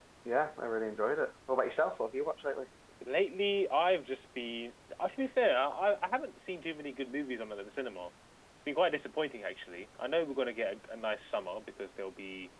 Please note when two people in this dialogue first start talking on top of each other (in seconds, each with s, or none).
none